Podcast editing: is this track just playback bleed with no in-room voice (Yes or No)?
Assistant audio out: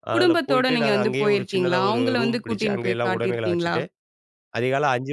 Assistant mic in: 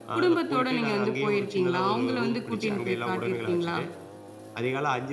Yes